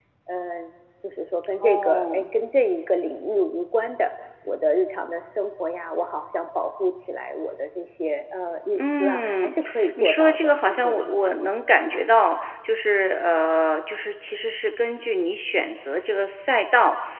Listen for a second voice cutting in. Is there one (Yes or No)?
Yes